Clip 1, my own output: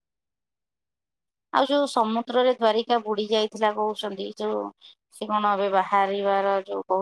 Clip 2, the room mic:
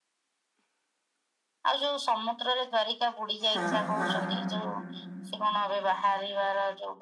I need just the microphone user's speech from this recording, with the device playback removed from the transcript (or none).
ହଁ ହଁ